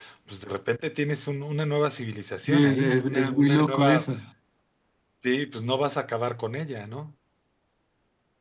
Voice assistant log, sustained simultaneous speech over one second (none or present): present